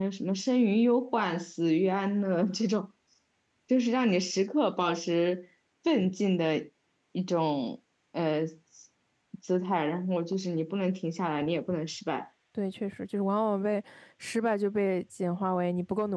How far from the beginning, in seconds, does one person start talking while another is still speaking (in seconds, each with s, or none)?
none